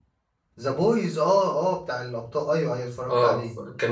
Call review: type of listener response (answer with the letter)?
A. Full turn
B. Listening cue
A